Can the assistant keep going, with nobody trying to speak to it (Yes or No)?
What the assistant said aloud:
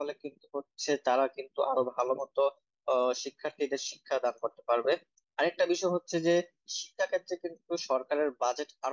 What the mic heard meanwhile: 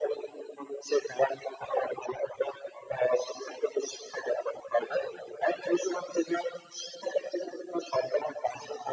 Yes